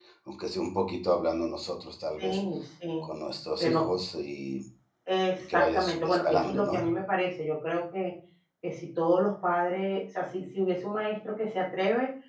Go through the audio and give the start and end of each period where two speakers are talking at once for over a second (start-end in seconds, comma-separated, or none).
5.5-6.7